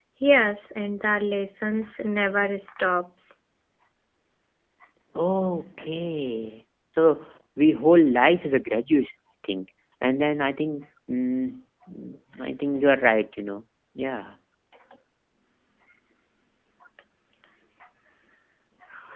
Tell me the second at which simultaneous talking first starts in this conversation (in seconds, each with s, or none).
none